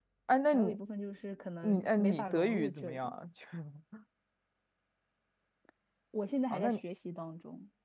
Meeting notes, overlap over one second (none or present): present